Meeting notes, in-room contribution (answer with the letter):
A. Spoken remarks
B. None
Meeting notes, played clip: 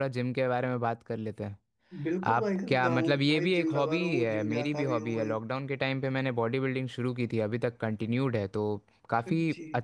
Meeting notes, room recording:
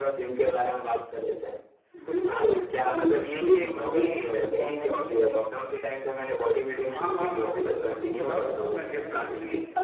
A